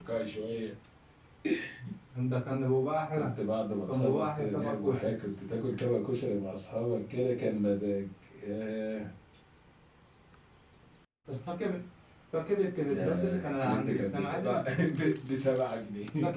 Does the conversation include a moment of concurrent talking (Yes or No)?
Yes